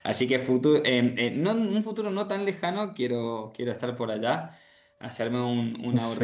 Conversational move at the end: listening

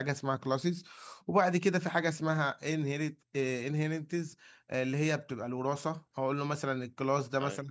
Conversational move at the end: listening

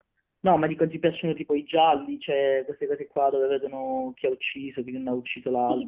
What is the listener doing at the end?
taking over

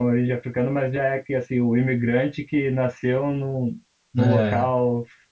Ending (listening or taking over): listening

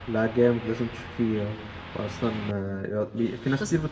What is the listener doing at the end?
listening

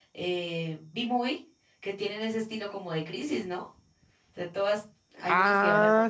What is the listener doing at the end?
taking over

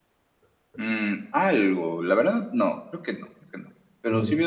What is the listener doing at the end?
listening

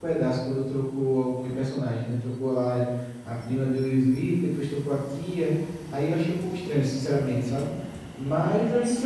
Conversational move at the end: listening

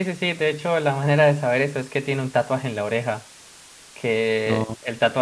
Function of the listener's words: listening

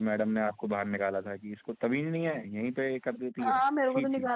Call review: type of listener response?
taking over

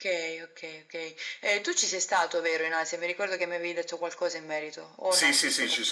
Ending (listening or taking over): taking over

